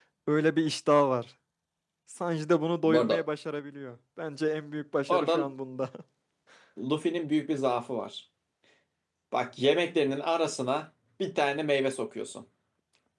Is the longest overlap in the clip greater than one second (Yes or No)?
No